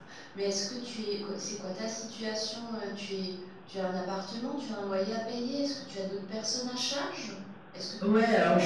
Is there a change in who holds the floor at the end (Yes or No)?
Yes